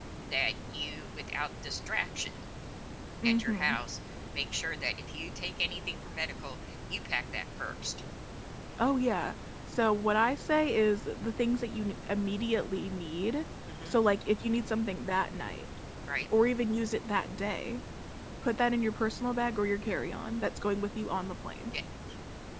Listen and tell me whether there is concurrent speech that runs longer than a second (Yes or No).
No